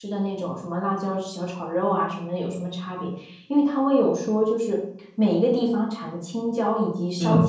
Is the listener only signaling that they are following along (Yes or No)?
Yes